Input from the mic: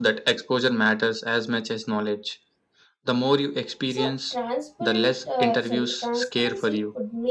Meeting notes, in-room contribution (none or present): present